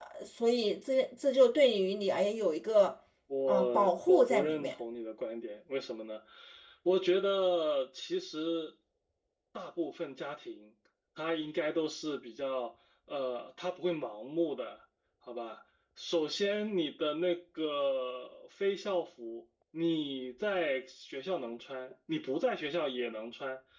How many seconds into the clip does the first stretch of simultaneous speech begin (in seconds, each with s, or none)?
3.5 s